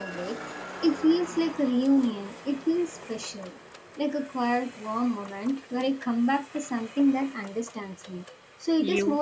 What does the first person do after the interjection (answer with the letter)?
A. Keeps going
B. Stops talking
A